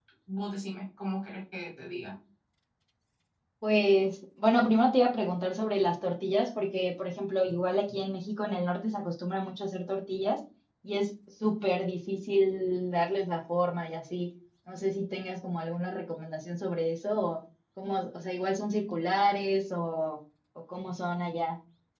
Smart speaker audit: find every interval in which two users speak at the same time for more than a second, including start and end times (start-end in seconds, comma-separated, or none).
none